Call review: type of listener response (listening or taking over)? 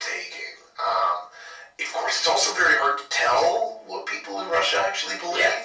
listening